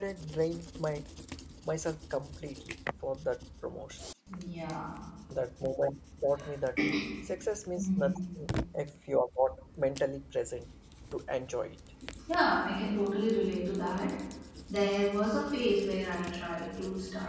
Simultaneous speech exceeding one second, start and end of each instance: none

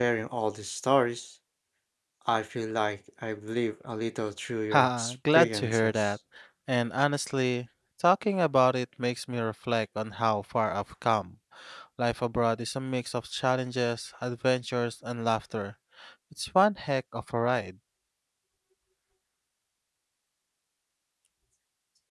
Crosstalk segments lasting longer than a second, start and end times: 4.7-6.1

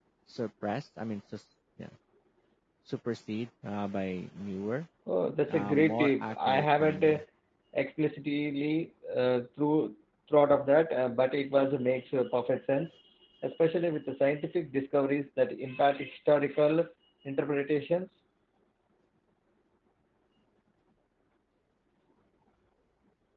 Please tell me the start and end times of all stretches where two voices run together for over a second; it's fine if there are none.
5.5-7.2

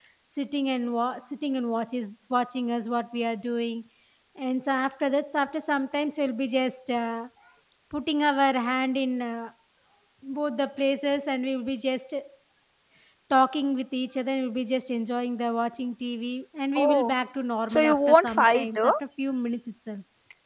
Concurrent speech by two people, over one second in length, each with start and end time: 17.7-18.9

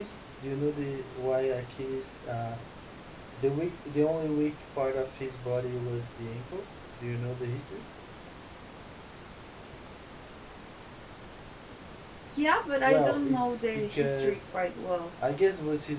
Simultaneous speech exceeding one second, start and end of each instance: 12.8-14.6

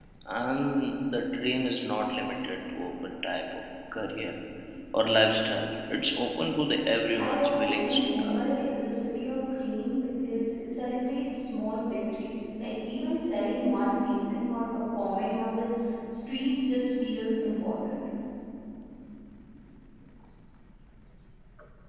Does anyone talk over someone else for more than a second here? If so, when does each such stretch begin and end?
7.2-8.4

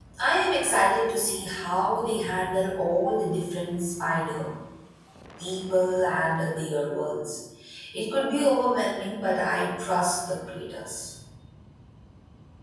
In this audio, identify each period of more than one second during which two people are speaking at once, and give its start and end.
none

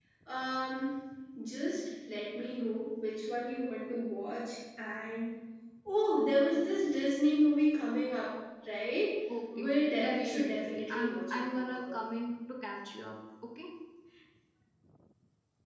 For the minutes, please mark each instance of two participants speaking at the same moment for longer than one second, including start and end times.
9.6-12.0

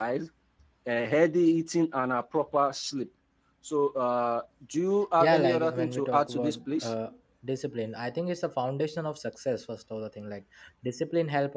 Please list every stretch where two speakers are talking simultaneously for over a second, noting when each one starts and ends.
5.2-6.9

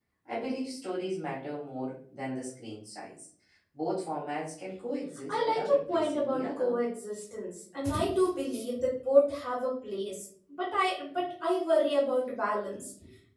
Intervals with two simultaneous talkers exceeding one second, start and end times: 5.3-6.8

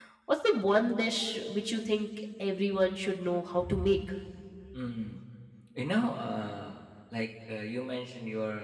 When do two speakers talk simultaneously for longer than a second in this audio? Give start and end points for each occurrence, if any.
none

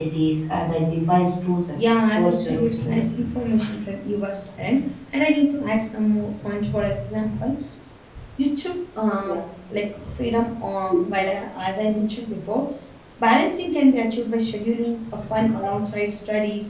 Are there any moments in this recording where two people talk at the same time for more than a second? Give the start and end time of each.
1.8-3.0

